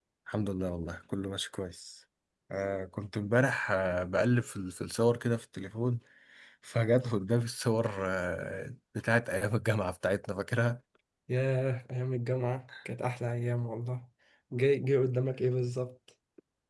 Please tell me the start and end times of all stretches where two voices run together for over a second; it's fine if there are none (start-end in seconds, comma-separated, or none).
none